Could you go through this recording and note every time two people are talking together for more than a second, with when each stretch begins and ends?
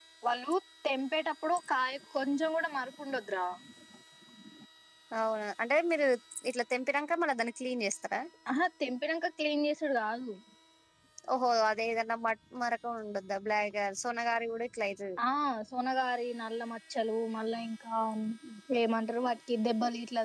none

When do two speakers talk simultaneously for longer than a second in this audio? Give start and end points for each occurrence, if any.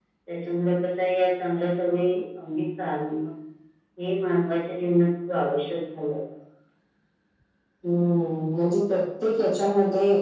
none

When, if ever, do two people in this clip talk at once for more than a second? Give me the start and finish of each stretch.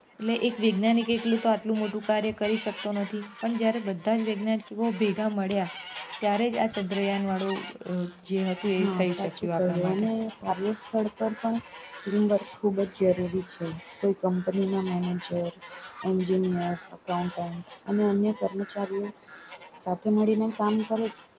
8.8-10.1

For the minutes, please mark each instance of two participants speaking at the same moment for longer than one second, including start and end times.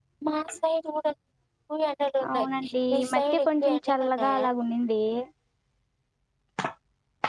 2.9-4.5

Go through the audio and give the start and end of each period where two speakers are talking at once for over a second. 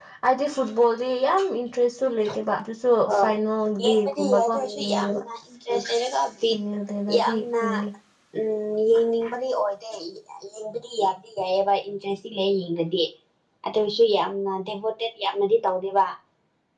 3.8-5.2

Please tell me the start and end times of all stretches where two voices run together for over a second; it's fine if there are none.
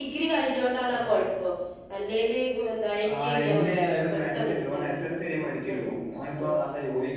3.1-5.1

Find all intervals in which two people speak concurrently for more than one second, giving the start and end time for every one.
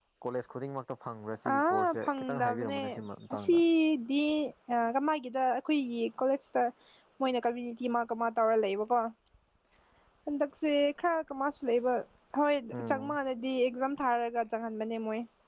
1.5-2.8

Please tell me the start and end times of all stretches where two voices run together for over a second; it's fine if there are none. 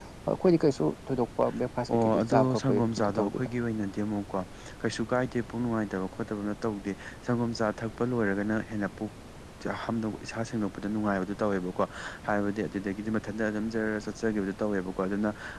1.9-3.5

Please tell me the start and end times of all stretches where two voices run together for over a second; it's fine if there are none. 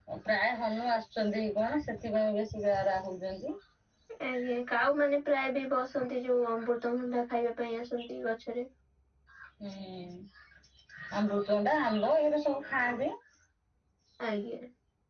none

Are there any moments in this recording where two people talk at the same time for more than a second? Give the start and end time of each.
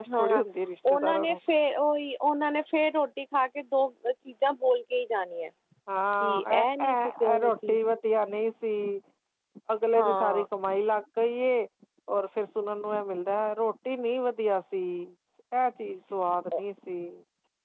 6.2-7.8

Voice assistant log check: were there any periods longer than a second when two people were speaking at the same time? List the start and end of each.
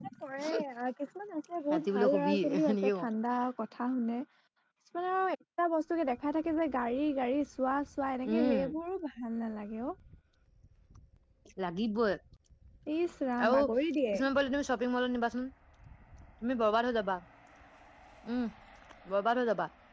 1.7-3.0

